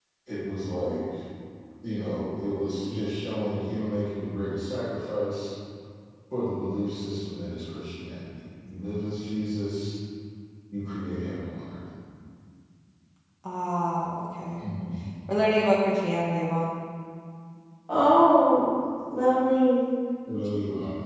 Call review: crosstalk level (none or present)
none